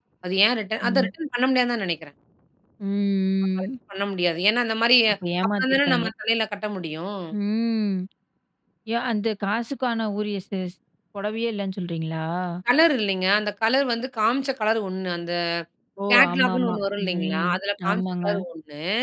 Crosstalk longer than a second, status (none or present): present